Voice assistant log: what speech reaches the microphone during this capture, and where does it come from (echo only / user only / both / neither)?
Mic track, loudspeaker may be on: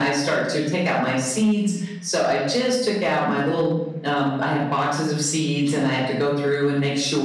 echo only